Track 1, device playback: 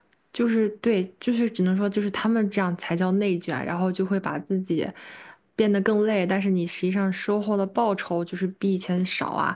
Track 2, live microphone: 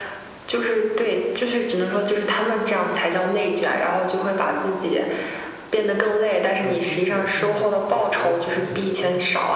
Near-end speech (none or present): present